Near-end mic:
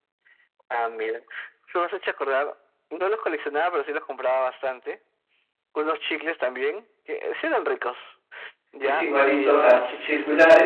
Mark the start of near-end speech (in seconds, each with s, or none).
8.8 s